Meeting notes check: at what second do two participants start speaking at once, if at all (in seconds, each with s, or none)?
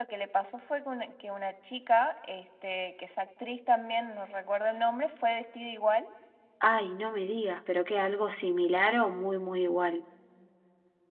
none